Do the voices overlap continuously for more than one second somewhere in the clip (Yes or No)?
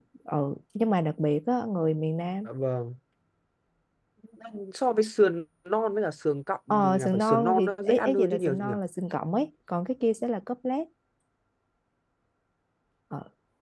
Yes